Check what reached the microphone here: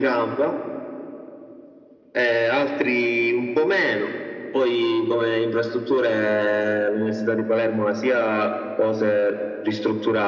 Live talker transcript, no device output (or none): none